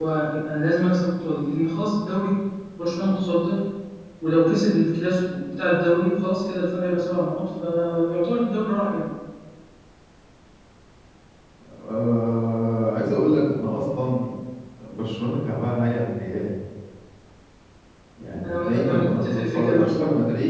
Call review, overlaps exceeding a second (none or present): present